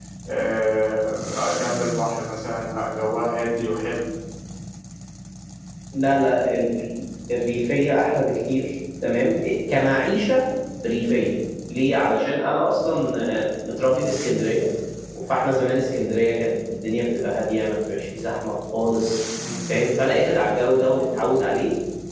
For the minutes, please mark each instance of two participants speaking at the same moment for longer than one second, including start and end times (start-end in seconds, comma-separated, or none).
none